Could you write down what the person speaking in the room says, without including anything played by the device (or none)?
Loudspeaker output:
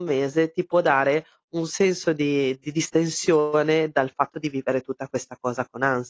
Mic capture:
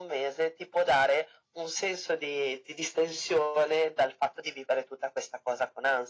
none